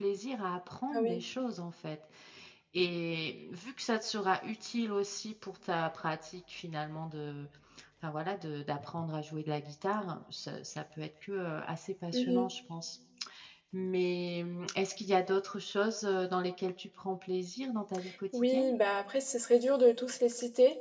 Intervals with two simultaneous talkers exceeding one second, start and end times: none

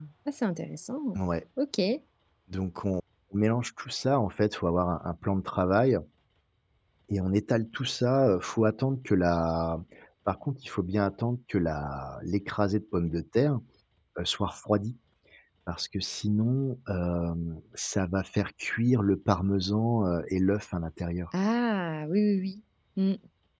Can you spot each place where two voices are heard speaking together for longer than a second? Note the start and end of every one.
none

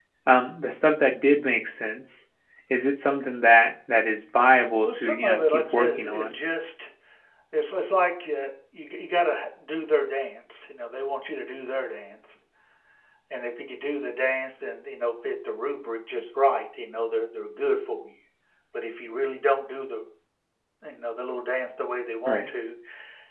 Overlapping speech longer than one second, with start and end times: 4.8-6.3

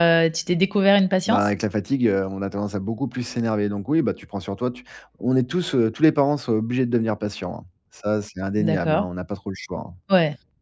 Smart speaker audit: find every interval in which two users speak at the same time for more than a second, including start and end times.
none

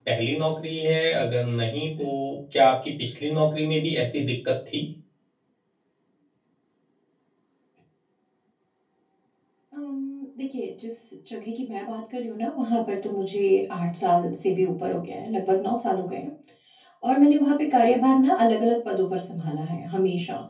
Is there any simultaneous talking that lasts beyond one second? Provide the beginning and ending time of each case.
none

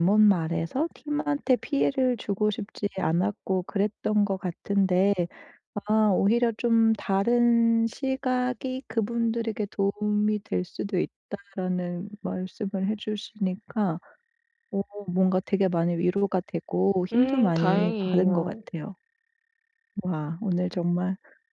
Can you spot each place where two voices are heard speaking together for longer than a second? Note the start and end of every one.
17.1-18.6

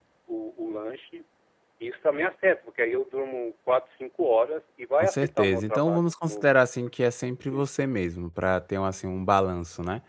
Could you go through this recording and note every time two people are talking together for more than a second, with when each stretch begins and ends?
5.0-6.5

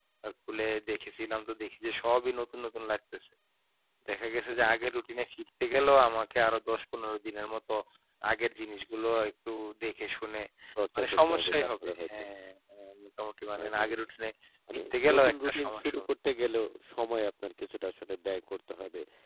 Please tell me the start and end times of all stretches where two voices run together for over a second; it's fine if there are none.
11.0-12.2, 14.7-16.0

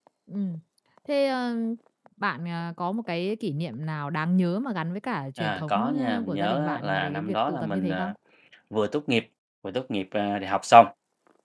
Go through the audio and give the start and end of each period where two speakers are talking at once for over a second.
5.4-8.1

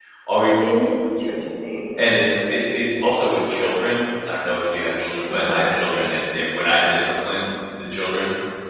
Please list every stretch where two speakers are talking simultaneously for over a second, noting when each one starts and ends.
none

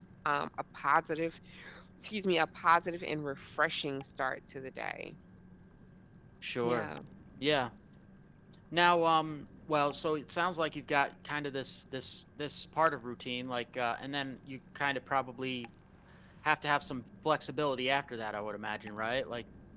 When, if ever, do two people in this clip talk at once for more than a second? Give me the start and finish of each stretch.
none

